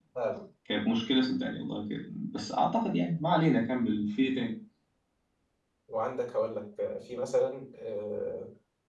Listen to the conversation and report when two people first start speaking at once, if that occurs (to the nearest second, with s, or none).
none